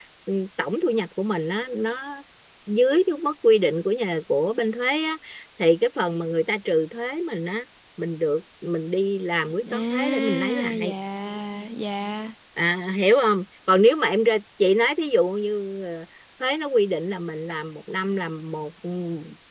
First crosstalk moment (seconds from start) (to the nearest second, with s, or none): 10 s